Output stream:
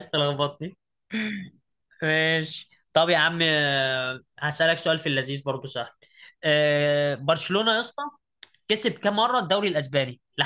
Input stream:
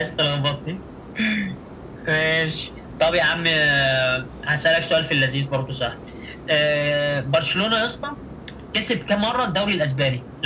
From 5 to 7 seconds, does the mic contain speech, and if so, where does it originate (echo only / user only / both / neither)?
echo only